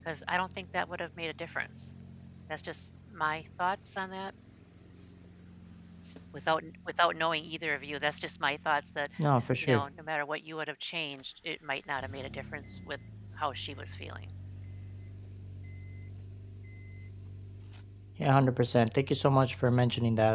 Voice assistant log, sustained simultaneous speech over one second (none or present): none